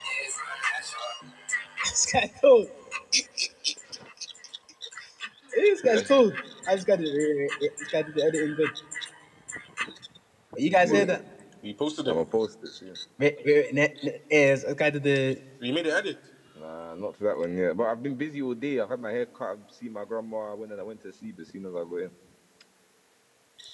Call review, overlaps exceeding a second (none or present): none